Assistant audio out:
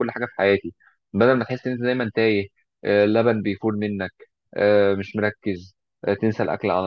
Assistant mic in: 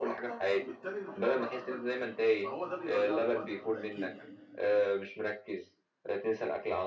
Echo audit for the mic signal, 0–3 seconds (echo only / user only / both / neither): both